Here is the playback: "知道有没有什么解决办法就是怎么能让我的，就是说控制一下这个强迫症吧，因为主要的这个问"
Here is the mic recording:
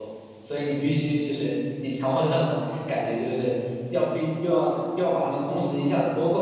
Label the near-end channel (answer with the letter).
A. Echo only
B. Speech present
B